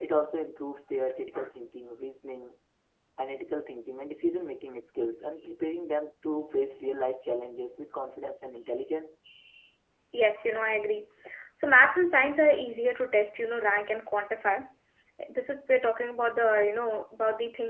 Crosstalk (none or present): none